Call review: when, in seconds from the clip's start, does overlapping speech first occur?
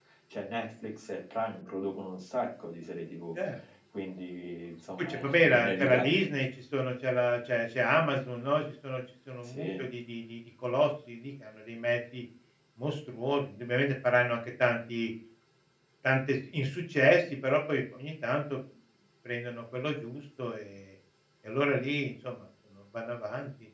5.0 s

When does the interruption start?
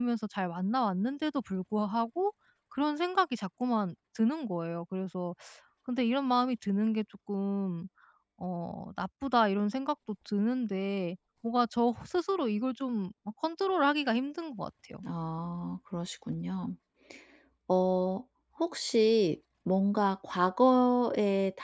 none

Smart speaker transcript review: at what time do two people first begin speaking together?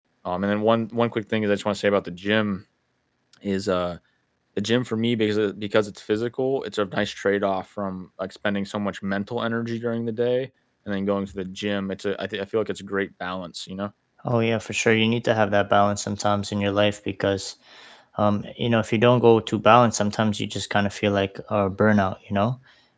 none

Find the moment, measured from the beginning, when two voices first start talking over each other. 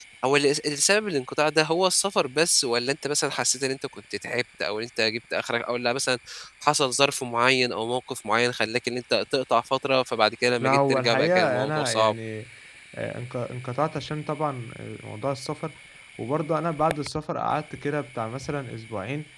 10.6 s

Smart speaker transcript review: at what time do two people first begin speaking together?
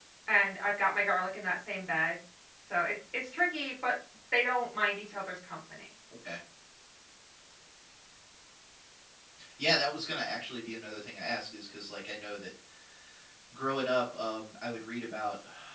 none

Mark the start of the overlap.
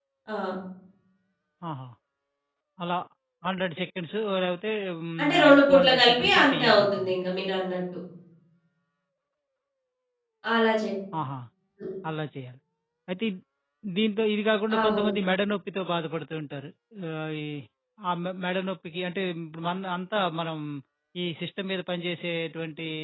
5.2 s

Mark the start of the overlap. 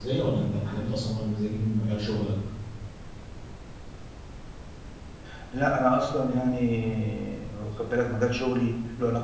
none

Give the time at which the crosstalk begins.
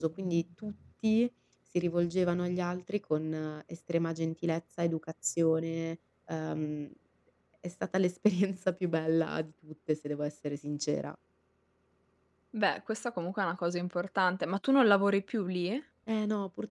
none

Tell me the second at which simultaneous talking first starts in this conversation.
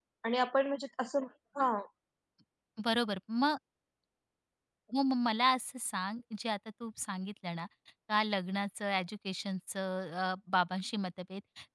none

